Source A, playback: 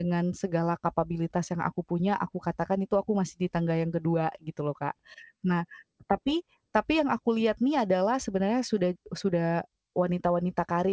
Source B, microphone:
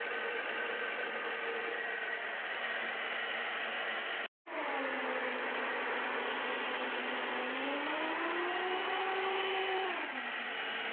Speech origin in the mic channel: neither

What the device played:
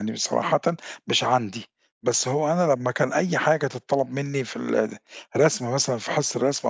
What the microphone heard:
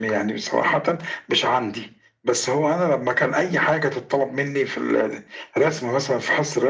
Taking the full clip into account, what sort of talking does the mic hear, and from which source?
echo only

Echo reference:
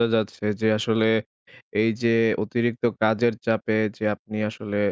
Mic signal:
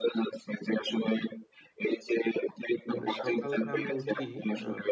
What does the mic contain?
both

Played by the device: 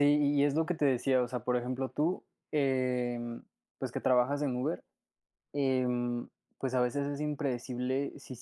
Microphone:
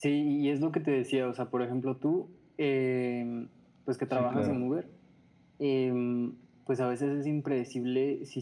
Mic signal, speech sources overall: both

